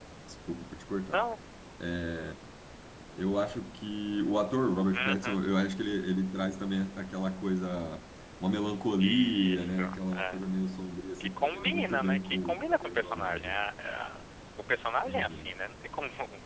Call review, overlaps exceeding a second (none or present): present